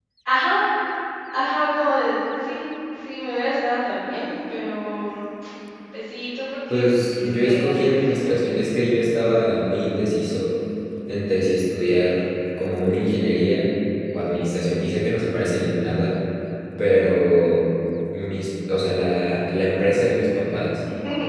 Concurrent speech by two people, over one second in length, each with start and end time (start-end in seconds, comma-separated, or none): 6.7-8.4